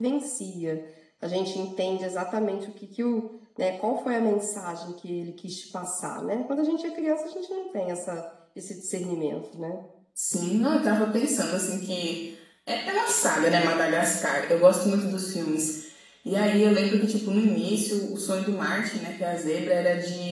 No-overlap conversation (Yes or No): Yes